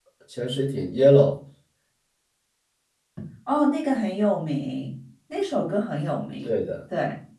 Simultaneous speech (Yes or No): No